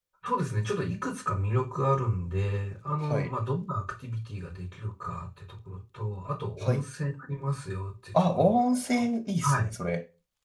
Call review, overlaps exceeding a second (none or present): none